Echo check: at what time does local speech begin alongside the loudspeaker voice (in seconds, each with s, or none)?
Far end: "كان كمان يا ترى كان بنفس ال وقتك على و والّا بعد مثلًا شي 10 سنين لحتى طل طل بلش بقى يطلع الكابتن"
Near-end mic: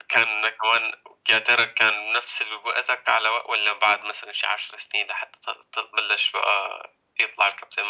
none